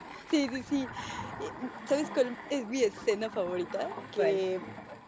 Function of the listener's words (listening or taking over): listening